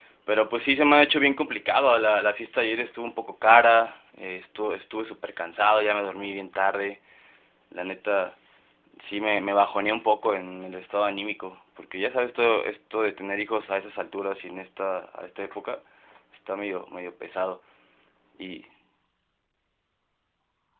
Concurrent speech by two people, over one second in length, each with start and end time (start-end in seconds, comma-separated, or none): none